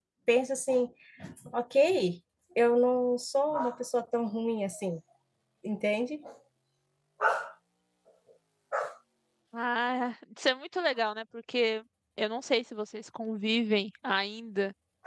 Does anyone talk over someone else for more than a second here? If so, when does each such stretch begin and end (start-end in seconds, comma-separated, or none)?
none